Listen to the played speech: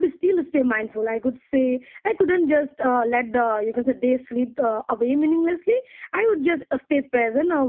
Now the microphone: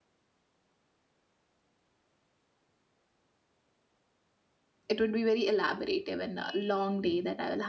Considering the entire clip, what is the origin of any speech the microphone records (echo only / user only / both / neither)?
user only